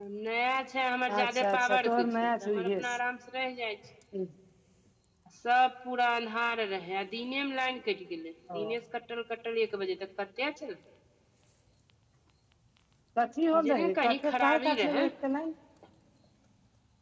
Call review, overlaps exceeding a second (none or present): present